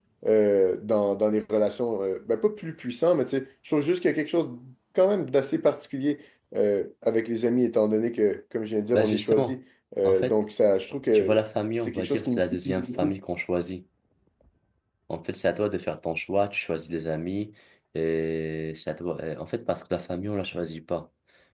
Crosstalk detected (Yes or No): Yes